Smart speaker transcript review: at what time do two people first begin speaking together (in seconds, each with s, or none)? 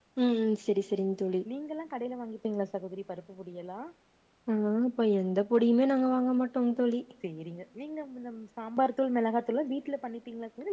none